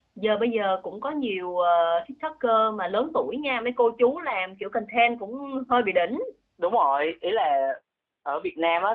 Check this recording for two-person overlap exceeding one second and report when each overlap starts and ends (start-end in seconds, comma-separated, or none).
none